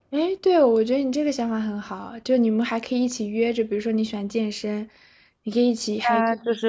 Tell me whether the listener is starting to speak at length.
Yes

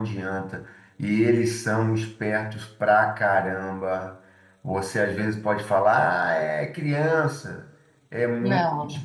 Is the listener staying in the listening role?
Yes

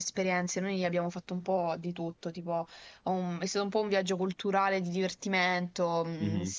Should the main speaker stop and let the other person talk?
No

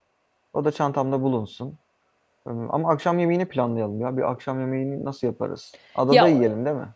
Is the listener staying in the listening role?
No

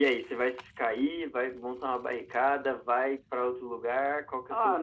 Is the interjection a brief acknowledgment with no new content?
No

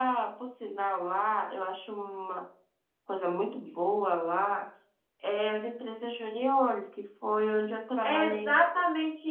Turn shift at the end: Yes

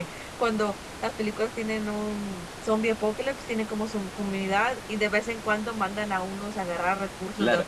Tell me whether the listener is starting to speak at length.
Yes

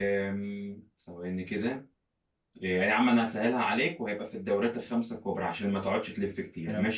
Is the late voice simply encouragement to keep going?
No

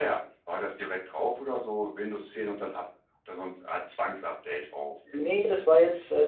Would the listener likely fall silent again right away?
No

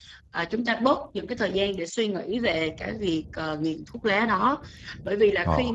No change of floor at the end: Yes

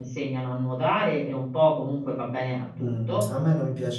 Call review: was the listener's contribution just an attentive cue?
No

